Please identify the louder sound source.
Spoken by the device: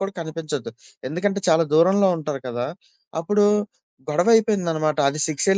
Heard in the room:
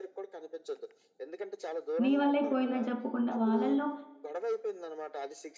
user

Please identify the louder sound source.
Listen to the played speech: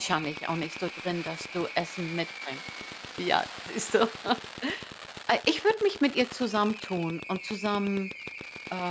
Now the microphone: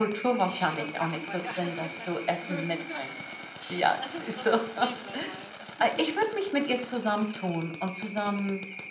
echo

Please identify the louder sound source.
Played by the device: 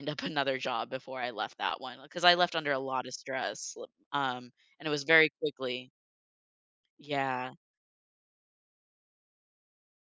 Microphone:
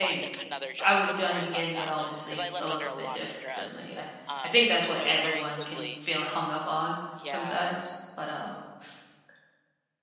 user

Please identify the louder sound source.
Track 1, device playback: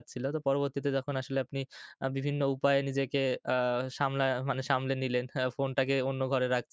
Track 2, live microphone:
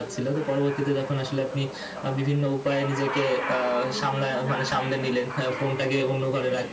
echo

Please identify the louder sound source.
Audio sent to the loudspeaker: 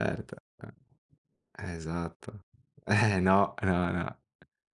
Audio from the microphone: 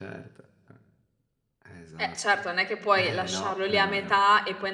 user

